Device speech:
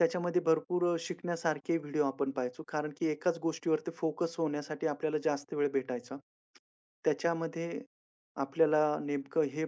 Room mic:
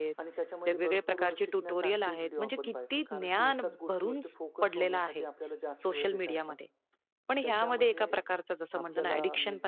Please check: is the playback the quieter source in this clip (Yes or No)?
Yes